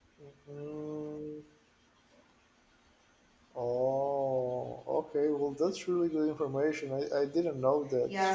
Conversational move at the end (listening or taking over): taking over